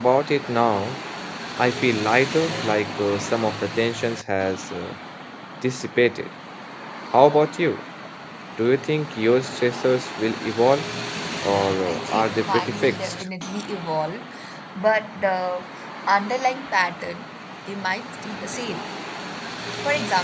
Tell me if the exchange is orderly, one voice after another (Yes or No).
No